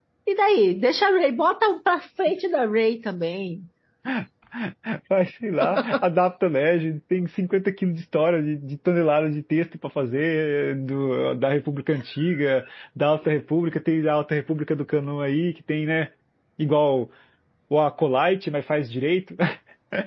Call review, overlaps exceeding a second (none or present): none